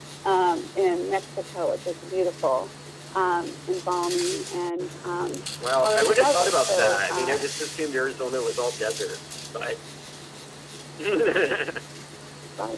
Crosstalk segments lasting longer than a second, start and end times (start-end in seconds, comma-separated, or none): 5.8-7.4